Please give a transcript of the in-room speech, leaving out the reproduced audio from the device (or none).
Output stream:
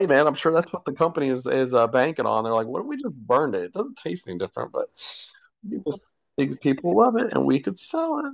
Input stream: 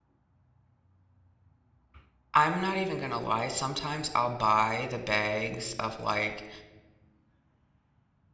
I'm not even gonna lie. Sometimes I'll buy the bags of like